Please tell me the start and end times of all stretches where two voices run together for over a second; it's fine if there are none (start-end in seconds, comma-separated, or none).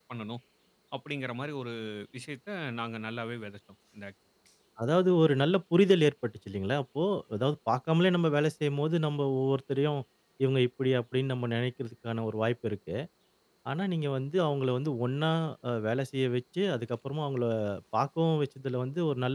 none